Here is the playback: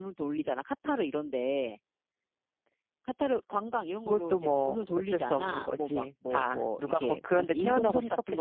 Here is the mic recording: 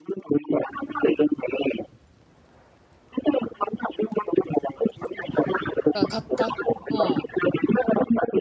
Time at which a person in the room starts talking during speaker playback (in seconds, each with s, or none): 5.9 s